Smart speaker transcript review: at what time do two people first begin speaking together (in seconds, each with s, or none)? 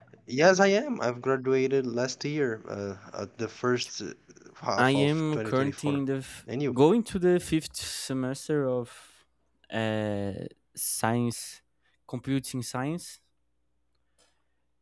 4.8 s